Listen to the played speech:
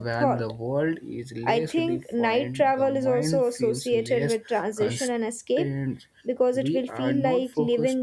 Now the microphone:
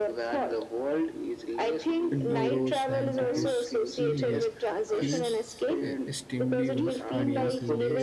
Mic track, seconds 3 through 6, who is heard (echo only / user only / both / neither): both